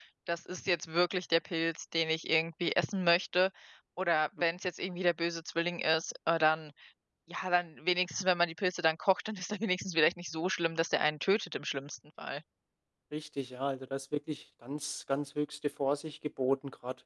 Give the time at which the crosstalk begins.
none

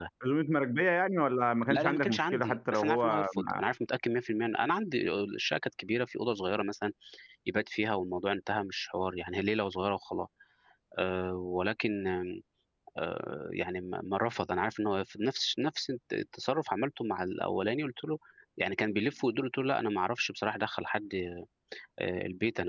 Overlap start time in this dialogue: 1.6 s

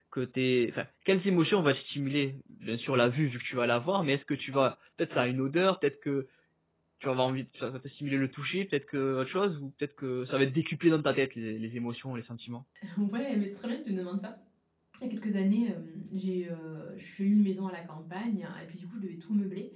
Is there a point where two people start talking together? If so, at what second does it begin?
none

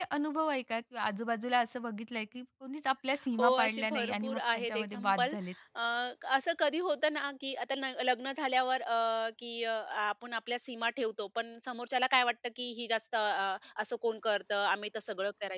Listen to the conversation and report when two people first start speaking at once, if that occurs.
3.4 s

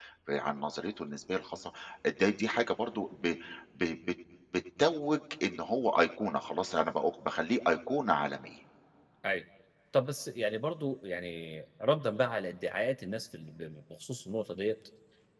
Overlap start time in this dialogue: none

